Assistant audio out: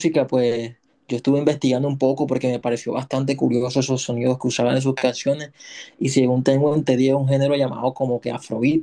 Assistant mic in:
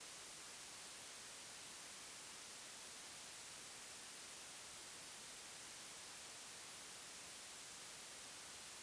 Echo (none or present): none